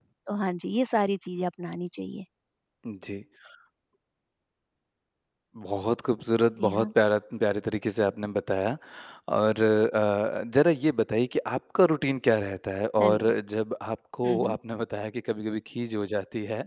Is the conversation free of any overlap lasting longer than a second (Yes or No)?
Yes